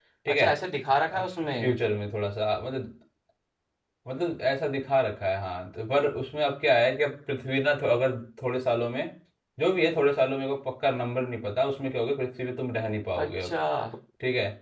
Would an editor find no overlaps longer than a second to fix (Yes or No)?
Yes